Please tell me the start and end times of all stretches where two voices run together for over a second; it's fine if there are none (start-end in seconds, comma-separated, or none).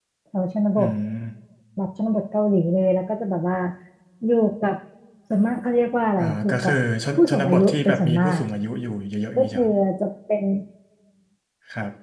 7.2-8.4